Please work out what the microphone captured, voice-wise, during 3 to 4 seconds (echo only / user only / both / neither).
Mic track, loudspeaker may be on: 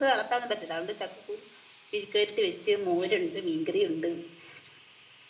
user only